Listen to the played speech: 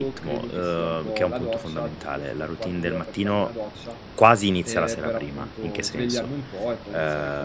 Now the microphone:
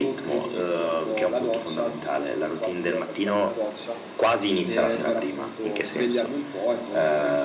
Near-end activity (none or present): none